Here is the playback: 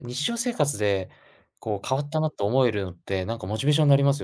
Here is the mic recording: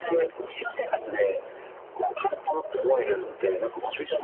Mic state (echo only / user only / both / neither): both